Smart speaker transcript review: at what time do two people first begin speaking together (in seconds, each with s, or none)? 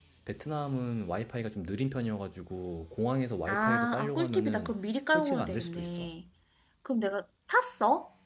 3.5 s